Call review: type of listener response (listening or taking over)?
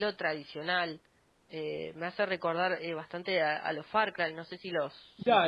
taking over